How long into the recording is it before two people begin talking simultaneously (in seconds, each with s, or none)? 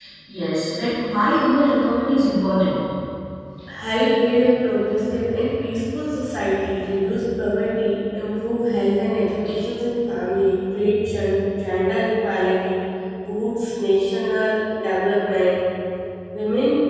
none